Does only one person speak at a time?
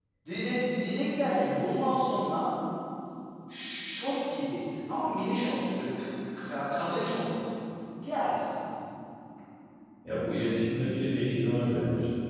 Yes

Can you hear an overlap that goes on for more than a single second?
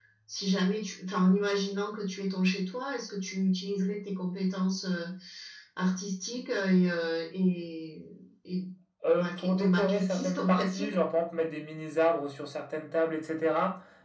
Yes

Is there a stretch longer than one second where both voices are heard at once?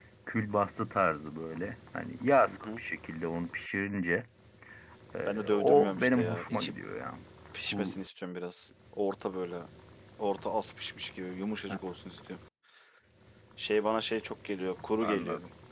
Yes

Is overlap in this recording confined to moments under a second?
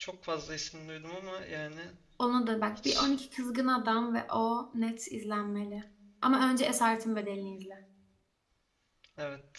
Yes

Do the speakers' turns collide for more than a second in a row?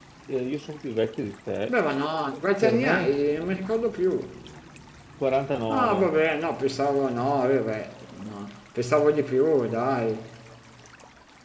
No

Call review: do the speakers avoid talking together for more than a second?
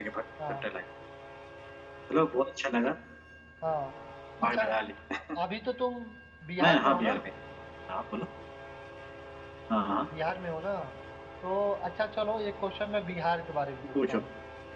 Yes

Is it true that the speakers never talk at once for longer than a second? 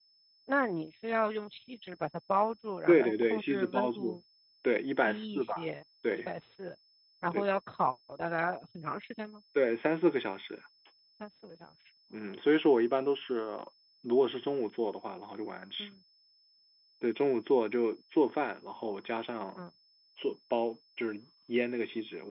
No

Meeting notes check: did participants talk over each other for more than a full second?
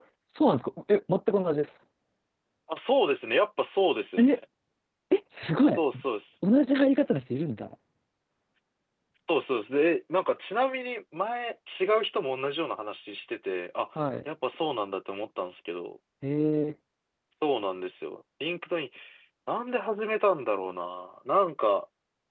No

